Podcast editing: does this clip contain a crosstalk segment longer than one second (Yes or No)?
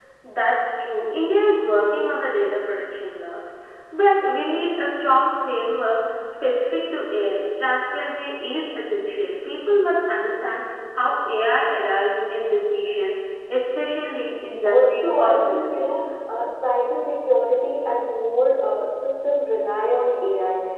Yes